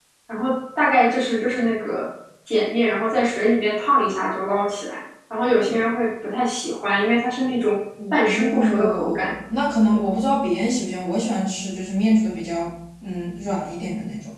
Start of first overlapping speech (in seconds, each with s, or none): 8.0 s